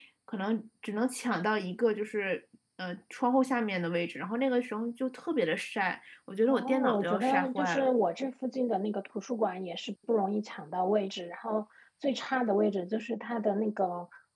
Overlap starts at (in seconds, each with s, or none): 6.5 s